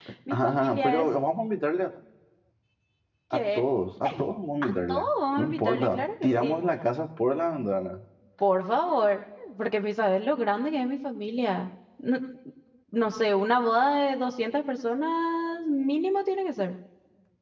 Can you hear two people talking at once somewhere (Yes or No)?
Yes